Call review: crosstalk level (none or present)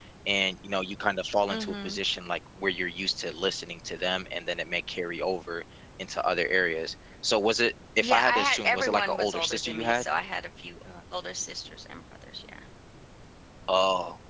present